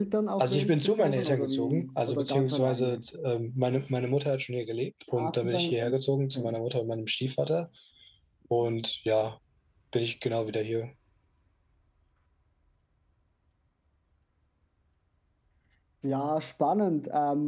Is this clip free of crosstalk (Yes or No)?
No